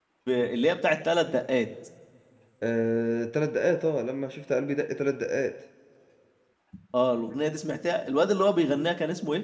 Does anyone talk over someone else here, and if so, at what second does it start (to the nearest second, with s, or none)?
none